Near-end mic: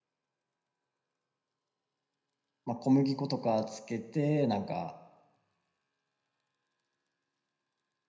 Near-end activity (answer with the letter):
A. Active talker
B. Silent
A